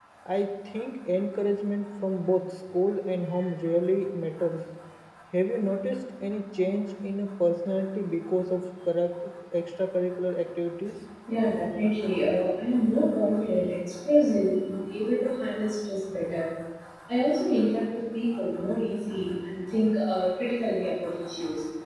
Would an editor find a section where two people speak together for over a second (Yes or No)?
No